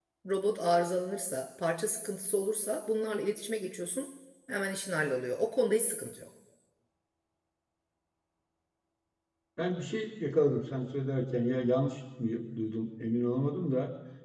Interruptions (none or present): none